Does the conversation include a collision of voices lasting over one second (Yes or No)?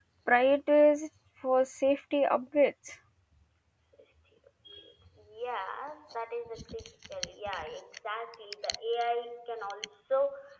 No